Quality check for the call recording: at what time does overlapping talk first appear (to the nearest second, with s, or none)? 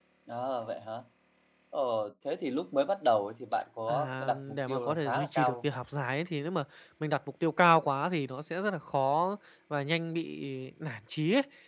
4 s